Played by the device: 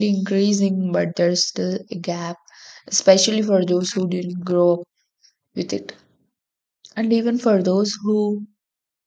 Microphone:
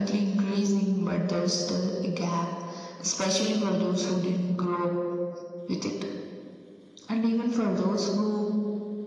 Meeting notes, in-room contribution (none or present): none